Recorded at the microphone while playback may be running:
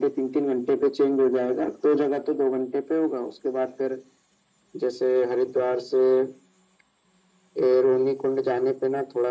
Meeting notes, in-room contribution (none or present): none